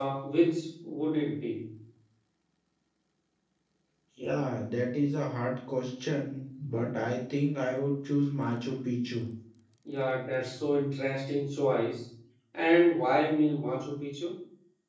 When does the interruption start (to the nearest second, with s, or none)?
none